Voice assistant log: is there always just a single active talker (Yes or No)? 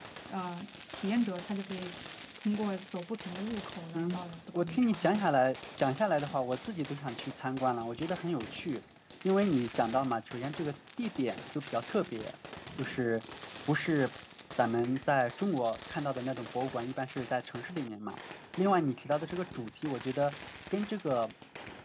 No